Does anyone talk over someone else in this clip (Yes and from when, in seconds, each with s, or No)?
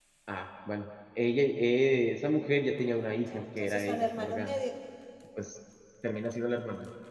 Yes, from 2.8 s